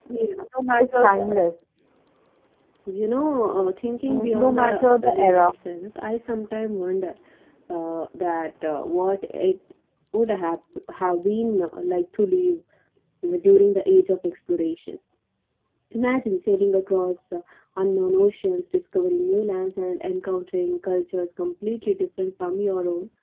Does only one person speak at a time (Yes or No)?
No